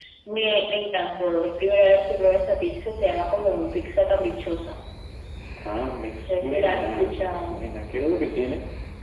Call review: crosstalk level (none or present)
present